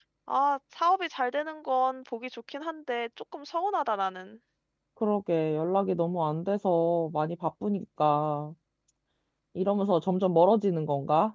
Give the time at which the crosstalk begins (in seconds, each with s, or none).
none